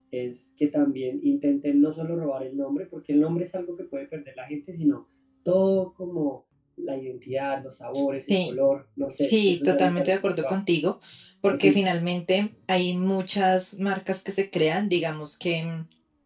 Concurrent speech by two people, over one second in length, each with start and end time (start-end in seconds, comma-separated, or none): 9.2-10.6